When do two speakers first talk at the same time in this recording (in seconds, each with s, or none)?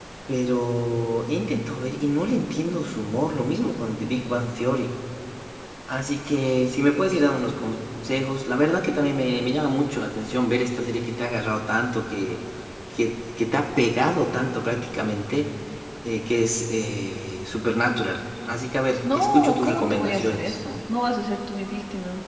19.0 s